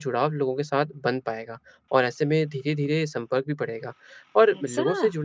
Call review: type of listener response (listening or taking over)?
listening